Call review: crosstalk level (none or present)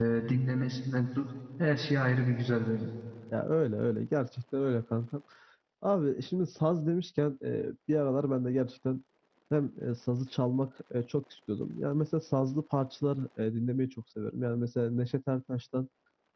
none